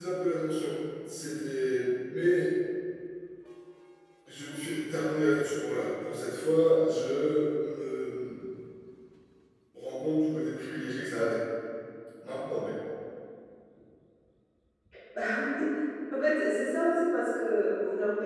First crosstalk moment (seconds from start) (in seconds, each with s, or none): none